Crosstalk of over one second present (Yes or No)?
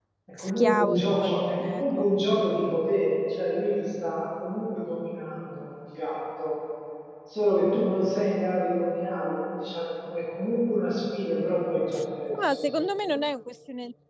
Yes